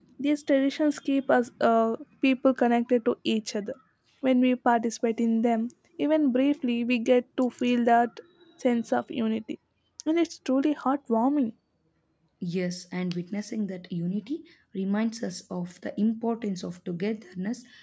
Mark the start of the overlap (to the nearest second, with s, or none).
none